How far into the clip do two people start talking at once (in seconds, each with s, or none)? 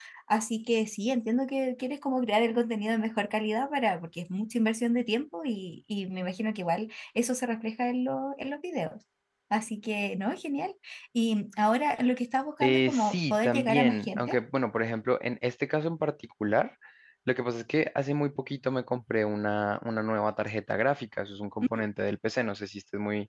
12.6 s